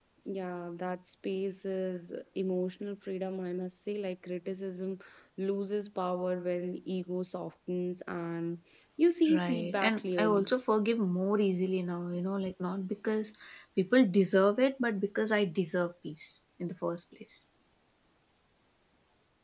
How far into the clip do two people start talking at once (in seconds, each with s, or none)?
9.2 s